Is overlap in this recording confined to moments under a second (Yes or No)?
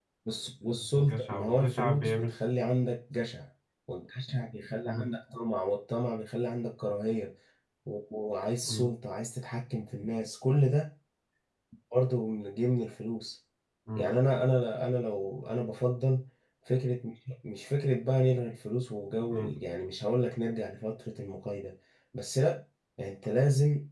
No